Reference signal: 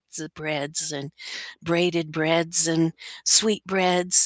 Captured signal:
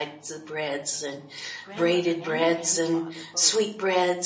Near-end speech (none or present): present